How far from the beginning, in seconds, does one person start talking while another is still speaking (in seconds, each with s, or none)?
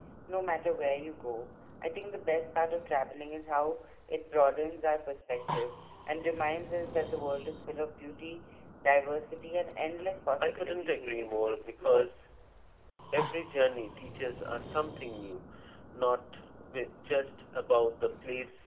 10.4 s